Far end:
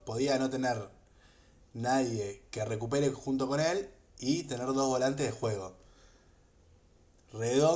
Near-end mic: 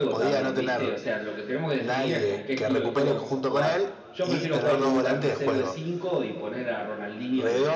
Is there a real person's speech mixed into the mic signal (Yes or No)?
Yes